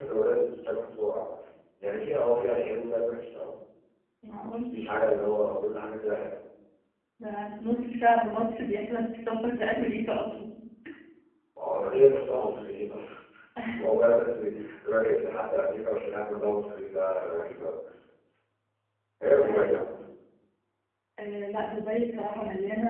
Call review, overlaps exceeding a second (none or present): none